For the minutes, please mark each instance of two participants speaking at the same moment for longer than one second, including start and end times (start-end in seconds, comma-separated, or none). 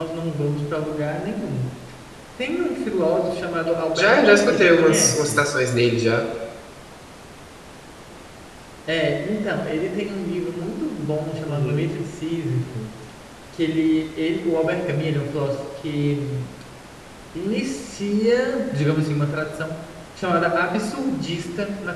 4.0-5.4